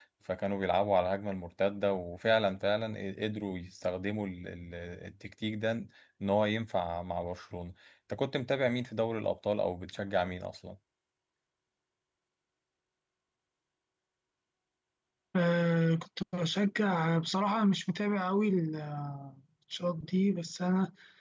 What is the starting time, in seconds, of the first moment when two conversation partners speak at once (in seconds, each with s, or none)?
none